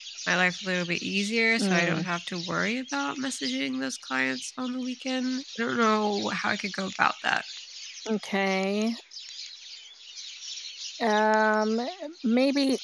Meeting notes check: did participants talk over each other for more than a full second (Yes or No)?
No